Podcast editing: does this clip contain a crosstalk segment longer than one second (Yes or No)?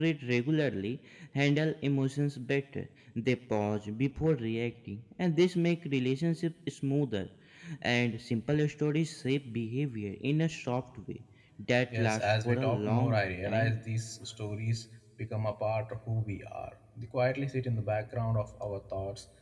Yes